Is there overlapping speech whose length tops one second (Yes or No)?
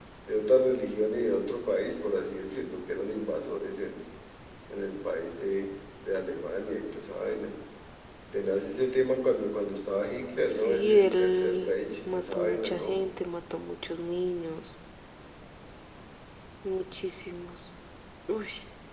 Yes